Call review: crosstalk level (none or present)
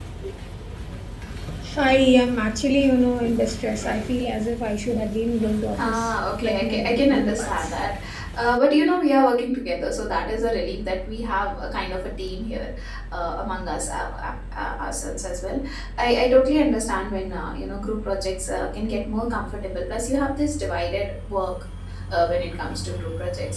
present